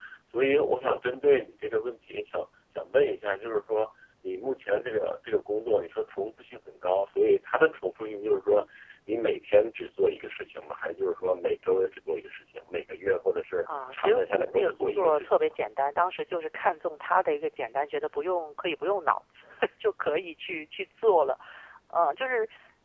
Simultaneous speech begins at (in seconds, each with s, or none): 13.9 s